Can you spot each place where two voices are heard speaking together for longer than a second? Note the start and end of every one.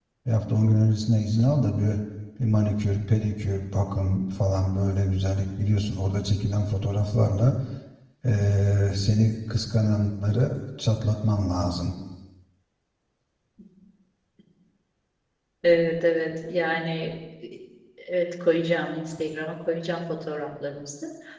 none

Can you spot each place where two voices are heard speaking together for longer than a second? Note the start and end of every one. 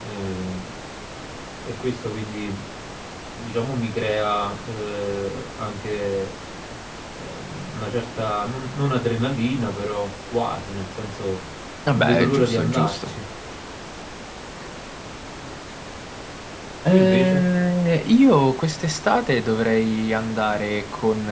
11.9-13.2

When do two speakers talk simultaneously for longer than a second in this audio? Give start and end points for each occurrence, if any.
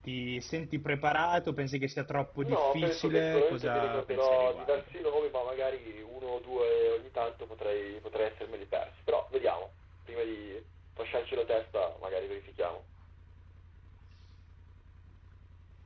2.4-4.9

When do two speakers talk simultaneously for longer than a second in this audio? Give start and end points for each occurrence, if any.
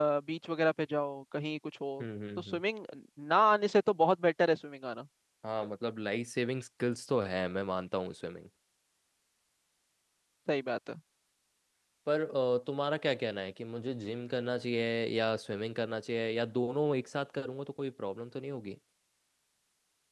none

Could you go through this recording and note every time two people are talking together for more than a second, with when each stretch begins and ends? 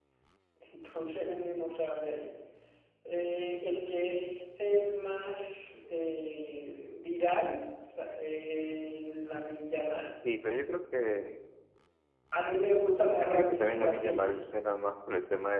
13.0-14.4

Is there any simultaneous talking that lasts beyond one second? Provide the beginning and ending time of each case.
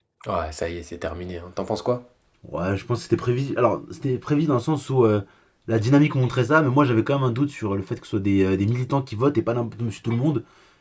none

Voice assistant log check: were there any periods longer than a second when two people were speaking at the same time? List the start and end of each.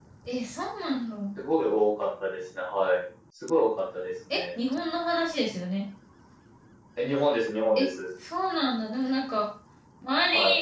none

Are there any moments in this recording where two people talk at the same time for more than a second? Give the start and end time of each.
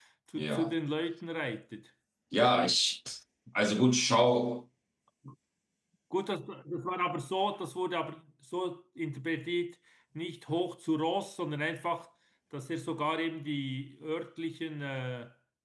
none

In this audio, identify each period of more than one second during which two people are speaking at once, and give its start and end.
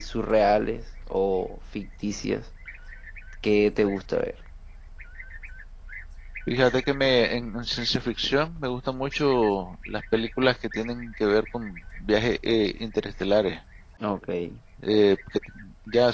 none

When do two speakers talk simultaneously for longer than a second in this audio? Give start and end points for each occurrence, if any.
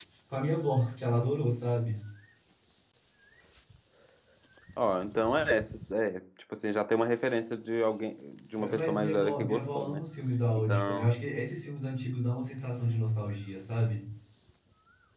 8.7-10.0

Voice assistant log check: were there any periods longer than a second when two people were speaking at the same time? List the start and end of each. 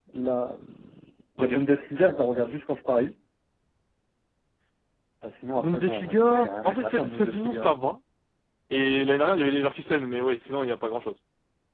5.6-7.8

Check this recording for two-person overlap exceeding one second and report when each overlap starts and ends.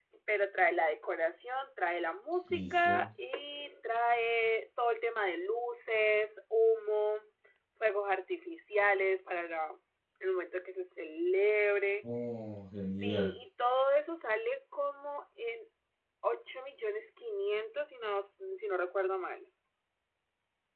none

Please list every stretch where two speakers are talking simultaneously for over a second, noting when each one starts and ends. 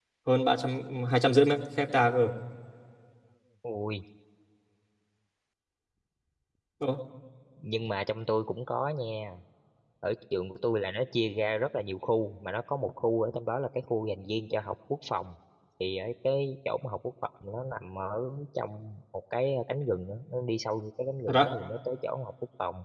none

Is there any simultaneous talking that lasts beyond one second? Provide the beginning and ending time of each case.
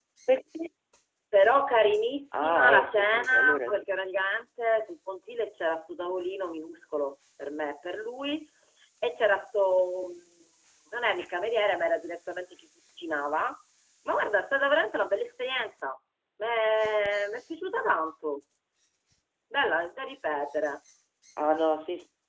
2.3-3.8

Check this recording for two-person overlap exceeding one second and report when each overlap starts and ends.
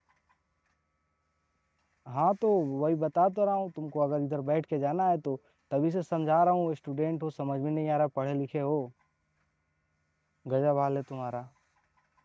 none

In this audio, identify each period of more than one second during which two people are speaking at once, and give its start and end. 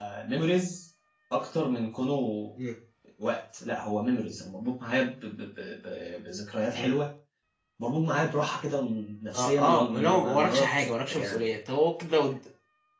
9.3-11.4

